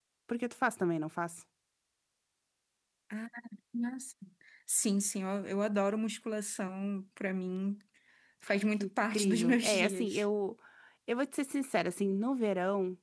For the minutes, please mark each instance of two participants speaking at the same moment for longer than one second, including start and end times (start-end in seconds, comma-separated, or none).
8.5-10.2